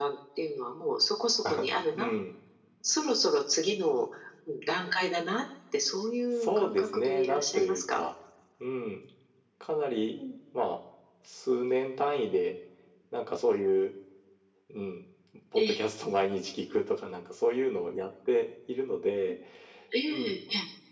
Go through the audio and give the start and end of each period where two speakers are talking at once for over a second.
6.4-8.0

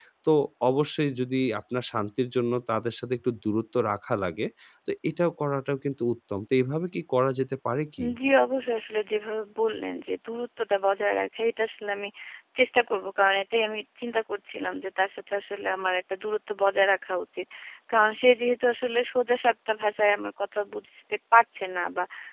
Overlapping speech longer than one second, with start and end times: none

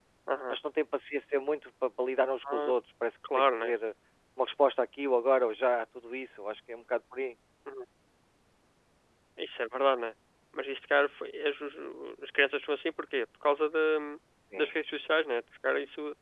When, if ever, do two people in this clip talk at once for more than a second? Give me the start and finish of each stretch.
none

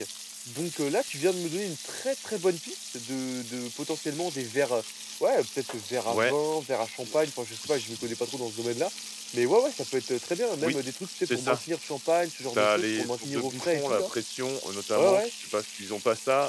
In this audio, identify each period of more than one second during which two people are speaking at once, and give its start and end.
12.5-14.1

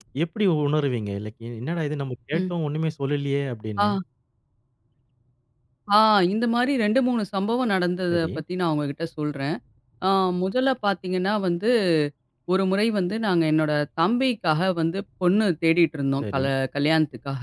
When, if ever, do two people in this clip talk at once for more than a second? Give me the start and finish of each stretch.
none

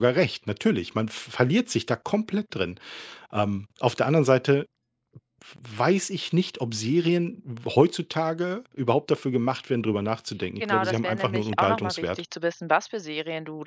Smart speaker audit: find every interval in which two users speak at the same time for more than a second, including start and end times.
10.6-12.2

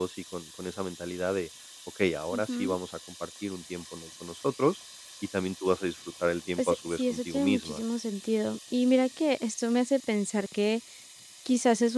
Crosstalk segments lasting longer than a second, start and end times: 6.6-7.8

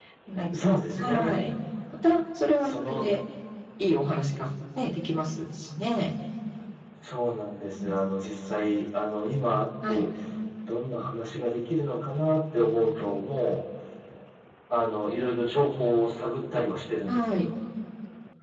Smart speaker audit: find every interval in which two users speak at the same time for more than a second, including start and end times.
none

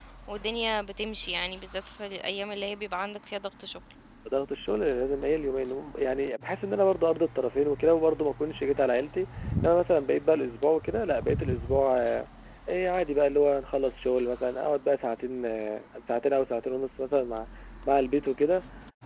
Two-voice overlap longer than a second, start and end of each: none

